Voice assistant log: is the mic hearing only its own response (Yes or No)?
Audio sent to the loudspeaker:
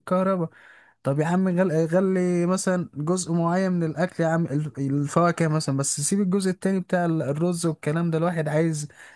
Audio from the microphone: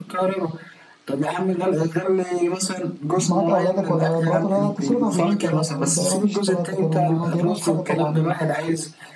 No